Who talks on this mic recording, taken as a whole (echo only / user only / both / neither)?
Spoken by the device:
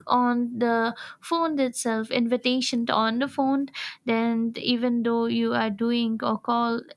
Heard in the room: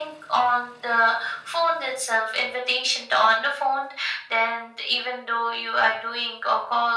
echo only